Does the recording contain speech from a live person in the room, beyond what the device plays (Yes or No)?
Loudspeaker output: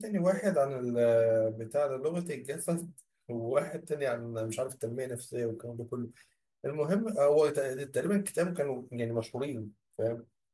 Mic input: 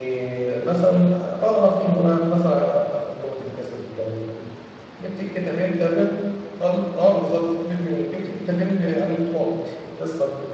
Yes